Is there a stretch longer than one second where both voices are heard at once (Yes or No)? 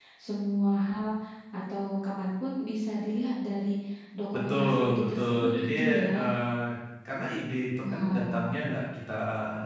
Yes